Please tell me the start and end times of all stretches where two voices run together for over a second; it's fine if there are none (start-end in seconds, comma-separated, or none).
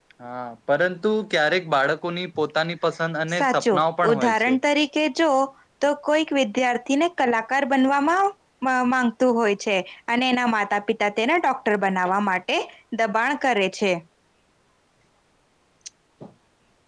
3.3-4.6